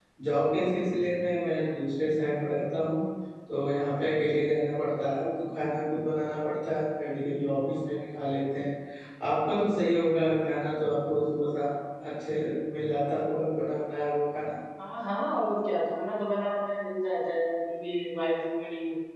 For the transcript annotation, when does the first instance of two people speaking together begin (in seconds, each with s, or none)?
none